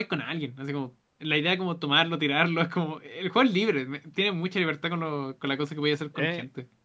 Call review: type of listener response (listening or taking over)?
taking over